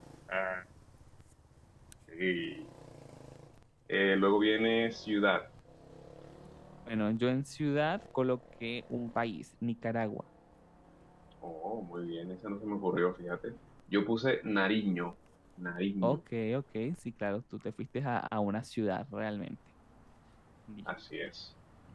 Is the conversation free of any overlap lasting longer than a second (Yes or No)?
Yes